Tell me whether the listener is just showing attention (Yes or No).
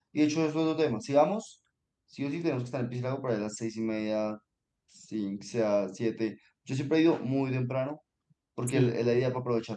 Yes